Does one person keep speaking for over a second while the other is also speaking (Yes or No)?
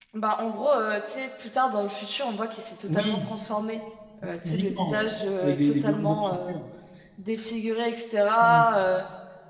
Yes